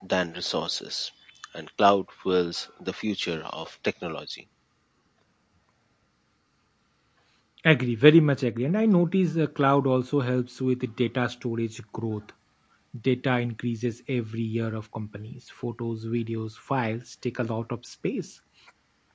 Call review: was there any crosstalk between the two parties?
No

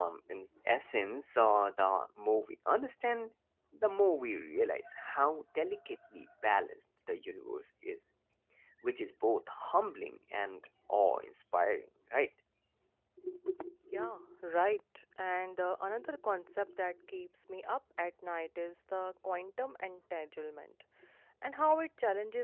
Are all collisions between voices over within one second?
Yes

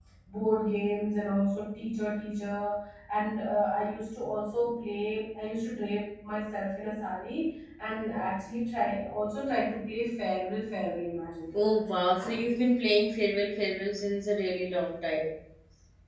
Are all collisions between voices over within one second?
Yes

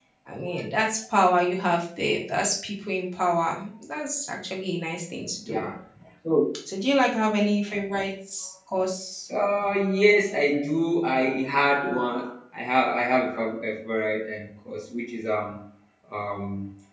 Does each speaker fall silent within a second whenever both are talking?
Yes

